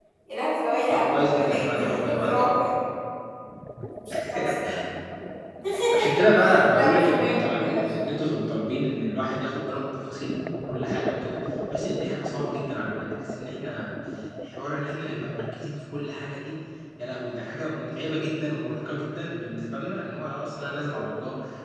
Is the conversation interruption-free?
No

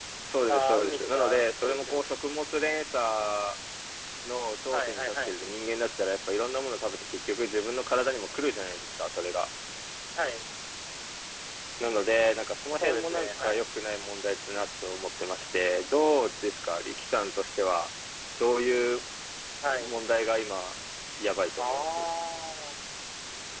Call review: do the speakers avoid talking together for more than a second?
No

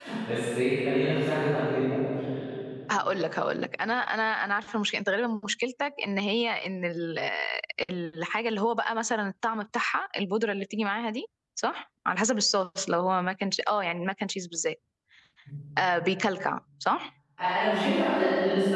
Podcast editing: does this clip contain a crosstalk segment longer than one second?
No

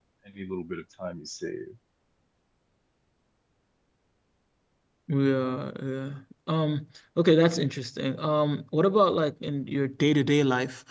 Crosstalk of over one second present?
No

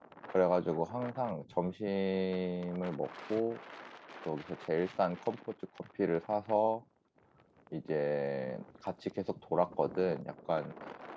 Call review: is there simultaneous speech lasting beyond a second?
No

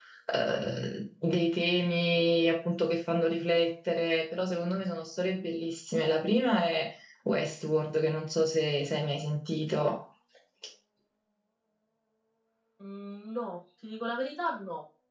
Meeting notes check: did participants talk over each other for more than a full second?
No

